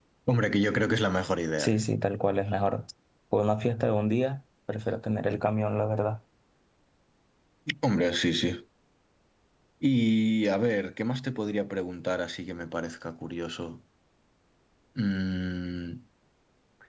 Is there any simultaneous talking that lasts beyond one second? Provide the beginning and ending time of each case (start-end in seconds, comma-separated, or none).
none